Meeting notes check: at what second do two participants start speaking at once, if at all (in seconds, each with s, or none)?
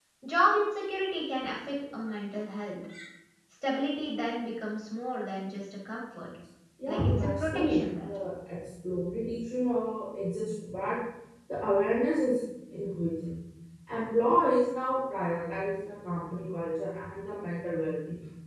6.9 s